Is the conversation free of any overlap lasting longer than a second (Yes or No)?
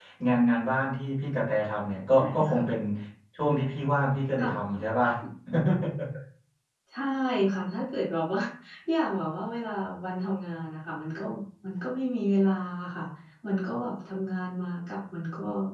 Yes